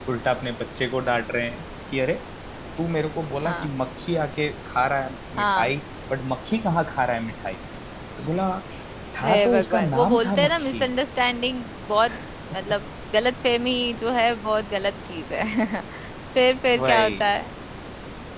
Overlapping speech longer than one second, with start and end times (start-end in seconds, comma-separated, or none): 9.2-10.8